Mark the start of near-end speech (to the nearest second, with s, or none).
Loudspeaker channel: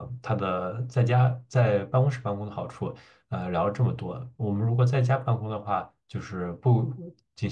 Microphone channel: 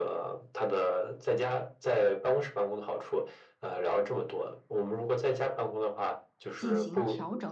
7 s